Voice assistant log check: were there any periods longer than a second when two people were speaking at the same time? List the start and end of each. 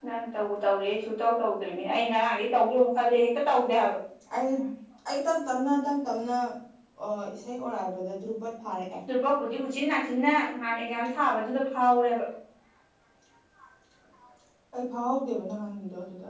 none

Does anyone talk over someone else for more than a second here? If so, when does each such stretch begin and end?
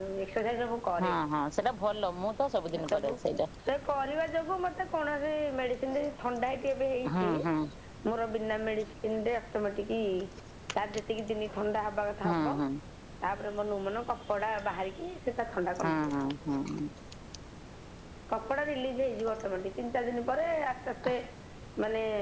none

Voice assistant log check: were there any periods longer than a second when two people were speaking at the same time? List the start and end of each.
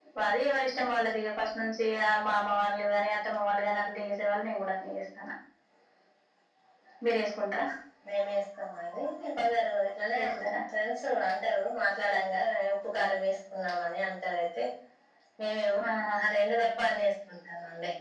none

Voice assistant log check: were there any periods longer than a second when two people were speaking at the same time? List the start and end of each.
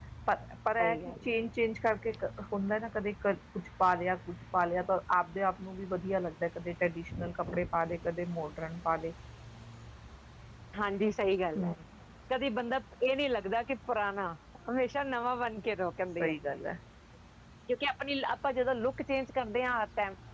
none

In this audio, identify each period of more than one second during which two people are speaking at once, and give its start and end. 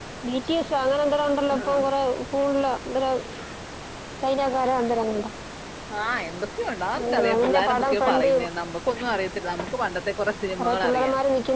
7.0-8.3

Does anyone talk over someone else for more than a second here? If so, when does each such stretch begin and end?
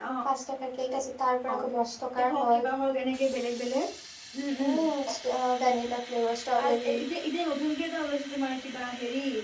none

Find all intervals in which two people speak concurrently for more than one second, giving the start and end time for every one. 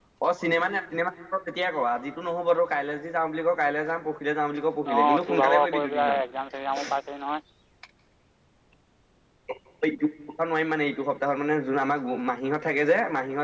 4.9-6.2

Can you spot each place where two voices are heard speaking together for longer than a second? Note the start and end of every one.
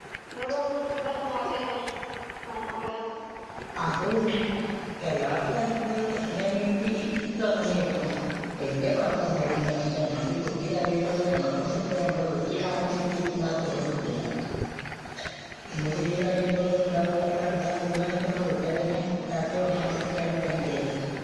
none

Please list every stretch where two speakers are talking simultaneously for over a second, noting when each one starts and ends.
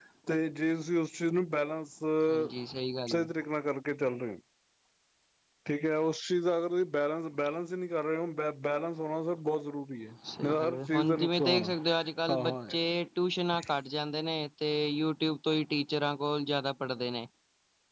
10.4-11.6

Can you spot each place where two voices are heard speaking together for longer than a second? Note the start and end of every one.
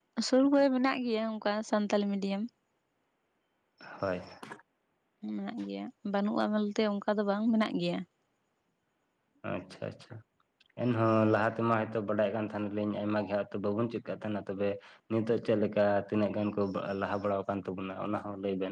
none

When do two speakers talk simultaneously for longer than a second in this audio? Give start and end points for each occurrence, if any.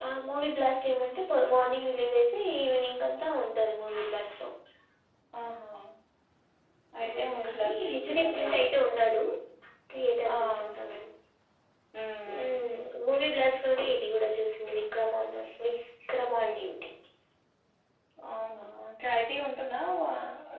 7.1-8.7

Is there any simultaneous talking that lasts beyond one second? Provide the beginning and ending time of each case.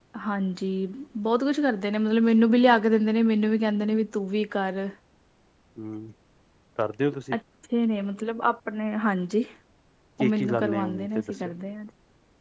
10.2-11.5

